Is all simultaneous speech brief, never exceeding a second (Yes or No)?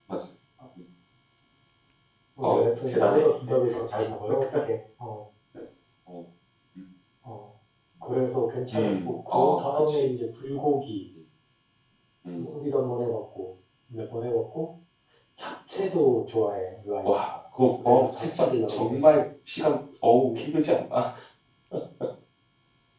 No